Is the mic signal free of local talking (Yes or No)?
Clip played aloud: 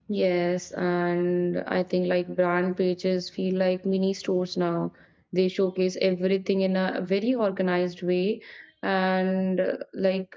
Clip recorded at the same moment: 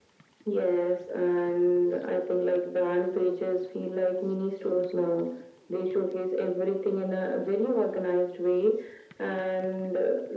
Yes